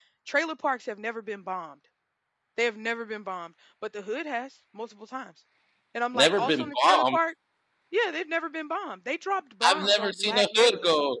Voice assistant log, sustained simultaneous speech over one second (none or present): present